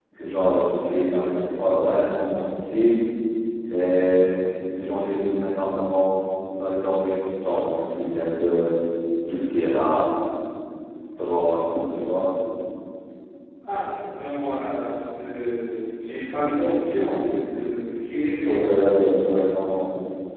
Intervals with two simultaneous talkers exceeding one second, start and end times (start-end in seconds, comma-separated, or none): none